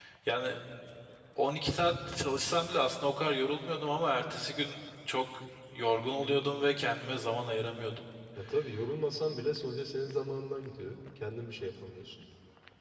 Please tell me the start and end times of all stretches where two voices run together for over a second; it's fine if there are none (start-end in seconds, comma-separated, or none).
none